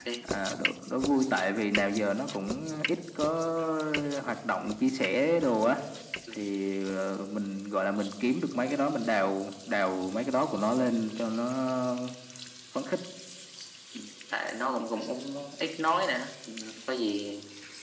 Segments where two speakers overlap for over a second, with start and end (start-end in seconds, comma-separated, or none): none